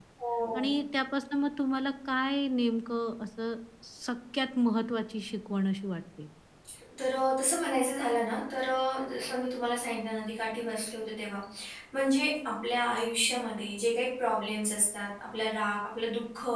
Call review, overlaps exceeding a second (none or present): none